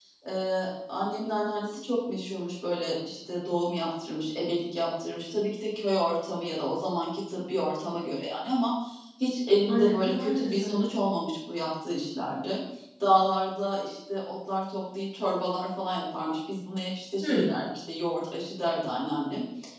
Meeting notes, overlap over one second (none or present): present